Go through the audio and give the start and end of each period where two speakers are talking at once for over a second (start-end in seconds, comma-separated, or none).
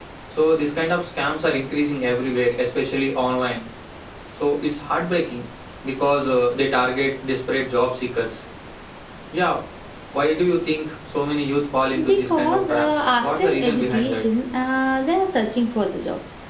12.0-14.2